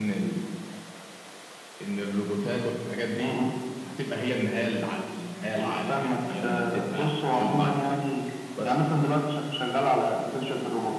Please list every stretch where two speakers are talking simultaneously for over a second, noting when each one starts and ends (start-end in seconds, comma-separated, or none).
5.6-8.0